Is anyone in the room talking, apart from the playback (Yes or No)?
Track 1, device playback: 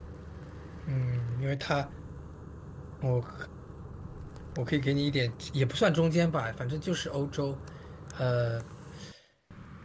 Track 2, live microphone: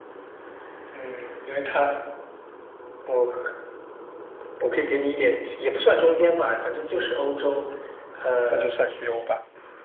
Yes